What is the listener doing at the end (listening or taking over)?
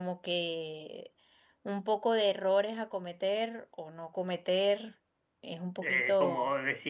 taking over